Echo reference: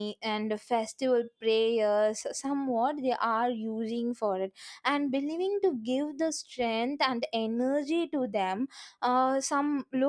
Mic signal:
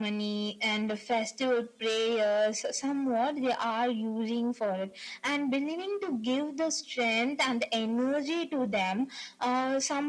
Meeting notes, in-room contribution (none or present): none